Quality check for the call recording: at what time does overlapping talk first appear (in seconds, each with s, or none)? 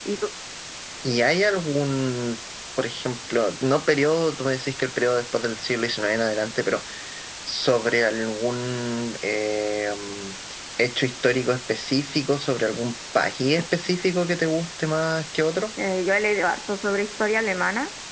none